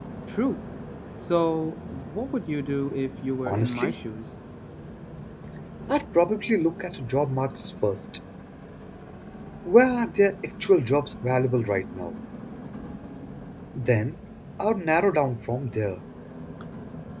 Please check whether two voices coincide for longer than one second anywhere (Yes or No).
No